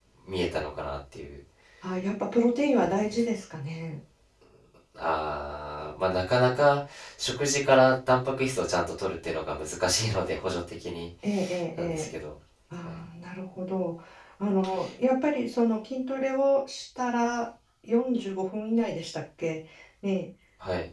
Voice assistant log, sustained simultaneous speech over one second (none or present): none